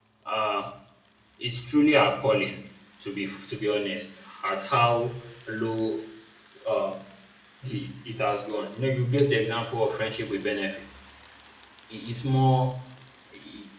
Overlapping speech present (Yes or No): No